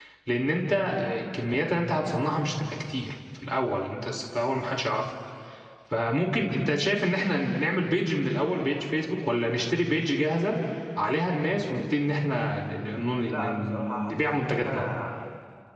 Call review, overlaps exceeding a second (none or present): present